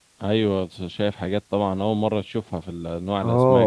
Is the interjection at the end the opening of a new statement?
Yes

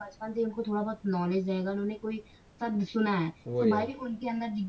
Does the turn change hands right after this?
No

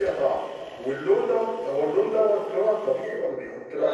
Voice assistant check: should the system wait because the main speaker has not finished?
No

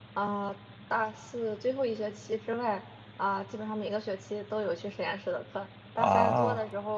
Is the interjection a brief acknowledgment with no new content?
Yes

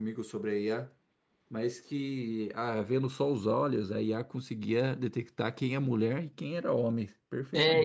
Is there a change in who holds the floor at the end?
Yes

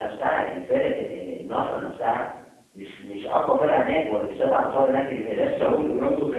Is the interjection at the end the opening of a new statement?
Yes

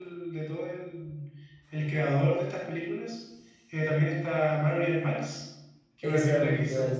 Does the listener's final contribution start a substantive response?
Yes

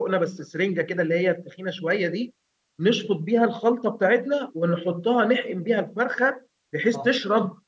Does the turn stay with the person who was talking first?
Yes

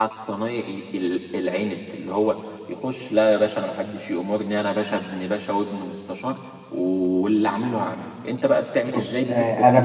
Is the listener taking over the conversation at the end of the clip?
Yes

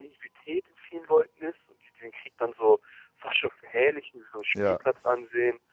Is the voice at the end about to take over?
No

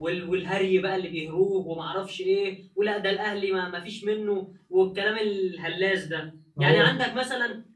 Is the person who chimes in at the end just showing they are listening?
Yes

